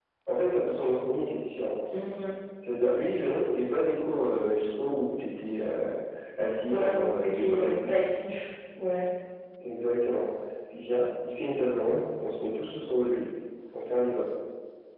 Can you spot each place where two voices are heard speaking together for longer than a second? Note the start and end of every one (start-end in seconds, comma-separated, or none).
6.7-8.0